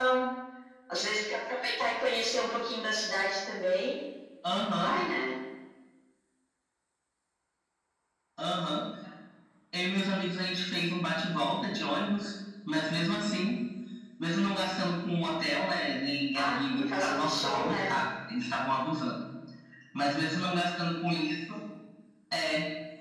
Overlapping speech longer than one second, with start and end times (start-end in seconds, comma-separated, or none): 16.3-17.9